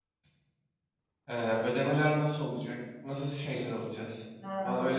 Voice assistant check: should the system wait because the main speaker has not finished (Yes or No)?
No